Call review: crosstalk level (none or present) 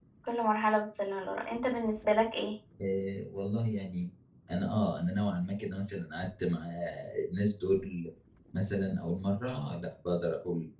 none